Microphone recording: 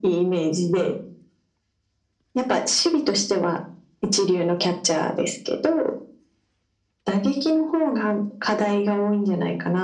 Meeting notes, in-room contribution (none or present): none